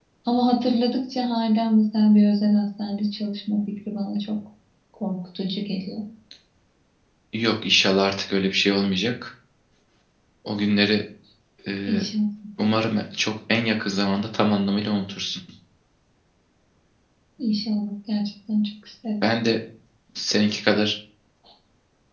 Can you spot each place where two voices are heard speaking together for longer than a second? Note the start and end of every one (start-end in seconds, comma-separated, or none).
none